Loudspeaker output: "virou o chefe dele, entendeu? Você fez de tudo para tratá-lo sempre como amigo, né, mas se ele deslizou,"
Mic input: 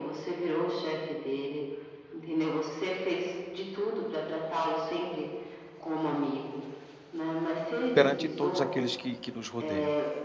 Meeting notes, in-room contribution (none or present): present